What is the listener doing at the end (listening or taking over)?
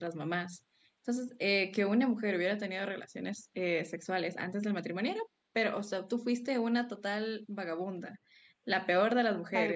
listening